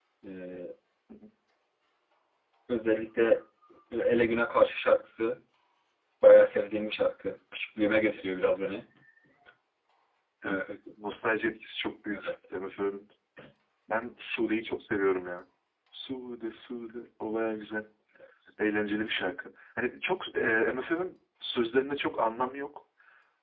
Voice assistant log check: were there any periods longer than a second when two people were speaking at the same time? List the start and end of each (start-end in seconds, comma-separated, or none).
none